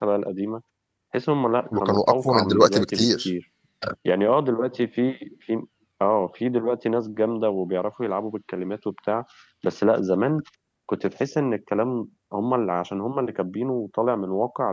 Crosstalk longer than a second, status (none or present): present